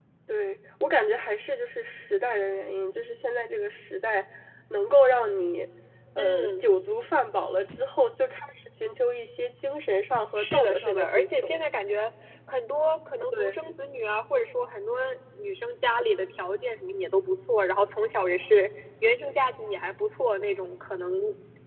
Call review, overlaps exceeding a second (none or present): present